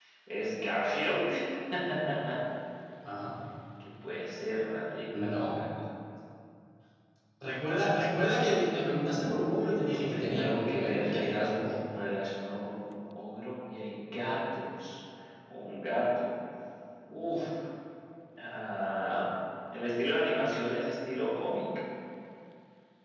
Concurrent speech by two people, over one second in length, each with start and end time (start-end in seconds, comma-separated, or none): 9.8-11.8